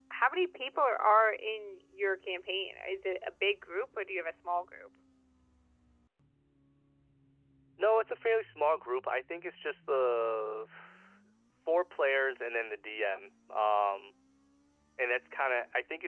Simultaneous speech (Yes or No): No